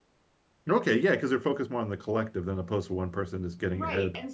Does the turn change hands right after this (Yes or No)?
Yes